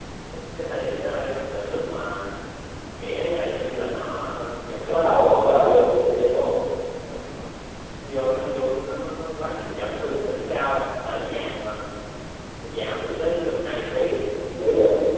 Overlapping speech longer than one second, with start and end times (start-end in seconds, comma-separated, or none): none